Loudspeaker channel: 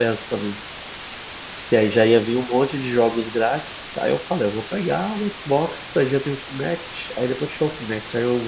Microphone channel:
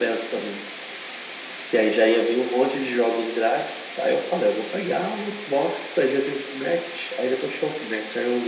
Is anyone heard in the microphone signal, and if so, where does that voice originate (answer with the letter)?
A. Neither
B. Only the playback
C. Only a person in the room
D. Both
B